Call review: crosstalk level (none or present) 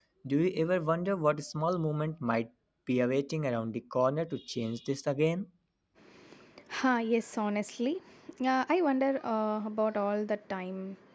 none